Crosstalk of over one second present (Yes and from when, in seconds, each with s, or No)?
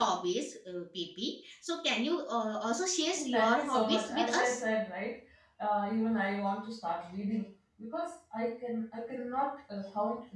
Yes, from 3.1 s